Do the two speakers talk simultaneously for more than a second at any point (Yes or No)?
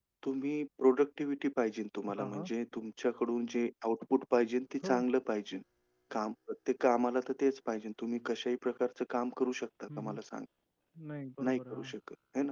No